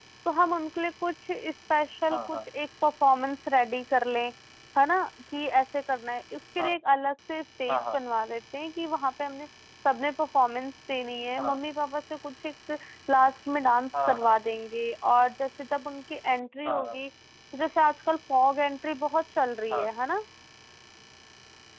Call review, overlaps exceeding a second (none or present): none